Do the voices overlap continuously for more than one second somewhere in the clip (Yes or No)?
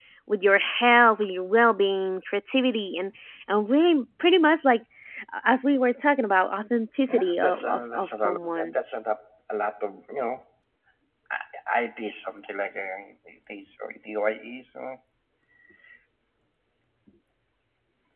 Yes